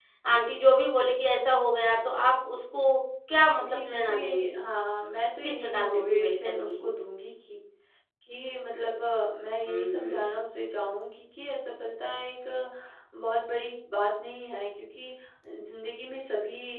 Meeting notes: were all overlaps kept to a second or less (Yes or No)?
No